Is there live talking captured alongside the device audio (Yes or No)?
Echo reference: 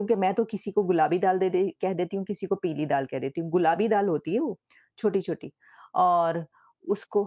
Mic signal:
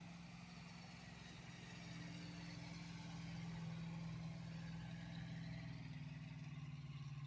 No